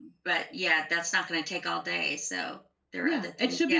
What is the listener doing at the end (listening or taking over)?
taking over